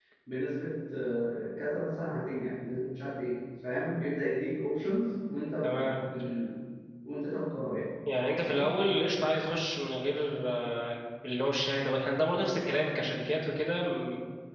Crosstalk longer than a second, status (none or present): none